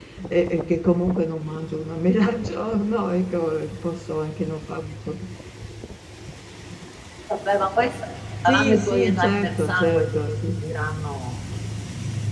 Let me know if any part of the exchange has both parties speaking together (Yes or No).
Yes